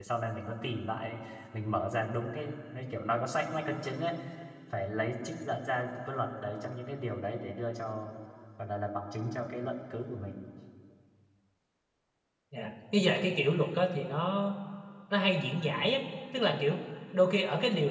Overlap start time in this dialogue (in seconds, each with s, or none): none